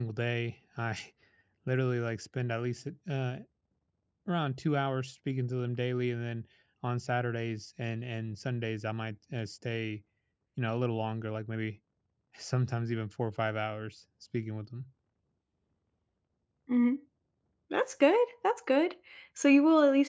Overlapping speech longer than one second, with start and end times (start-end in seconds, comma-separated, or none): none